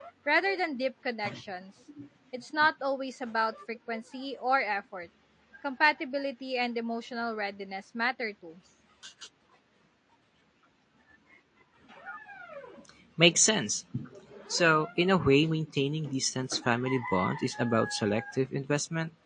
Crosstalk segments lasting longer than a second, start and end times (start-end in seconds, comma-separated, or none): none